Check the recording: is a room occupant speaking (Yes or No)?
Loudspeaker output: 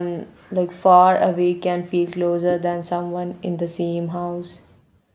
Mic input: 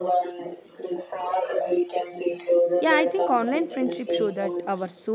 Yes